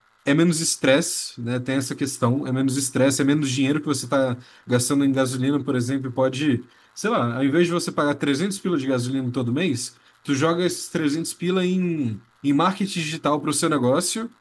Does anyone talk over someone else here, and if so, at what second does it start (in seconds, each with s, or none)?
none